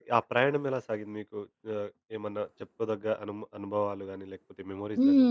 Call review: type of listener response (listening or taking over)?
taking over